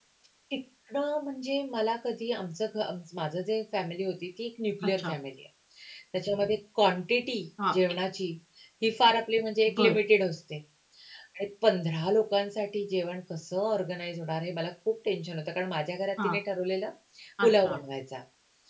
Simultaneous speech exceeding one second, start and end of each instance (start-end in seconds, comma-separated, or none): none